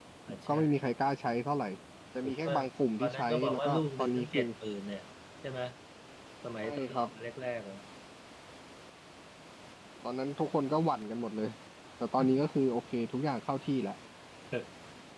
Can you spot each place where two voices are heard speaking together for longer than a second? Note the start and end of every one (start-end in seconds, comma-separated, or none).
3.0-4.5